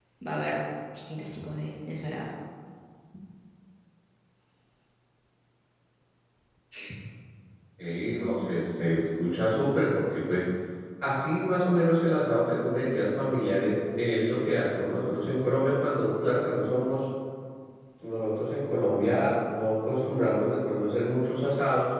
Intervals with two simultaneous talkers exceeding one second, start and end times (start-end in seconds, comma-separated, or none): none